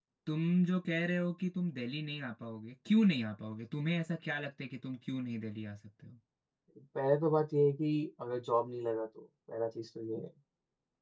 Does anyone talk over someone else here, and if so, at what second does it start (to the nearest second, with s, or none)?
none